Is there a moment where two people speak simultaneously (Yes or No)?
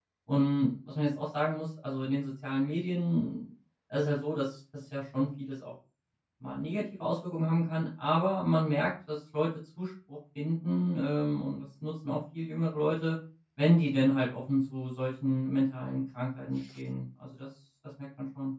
No